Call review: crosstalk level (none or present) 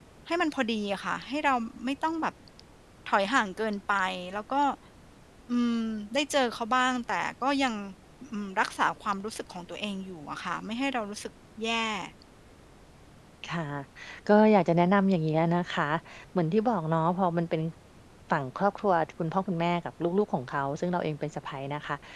none